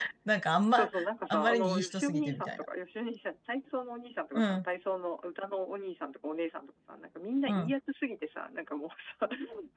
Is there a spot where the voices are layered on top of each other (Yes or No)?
Yes